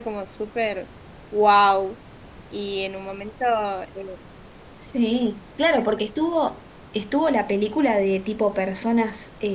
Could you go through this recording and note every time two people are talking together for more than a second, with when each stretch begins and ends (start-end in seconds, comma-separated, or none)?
none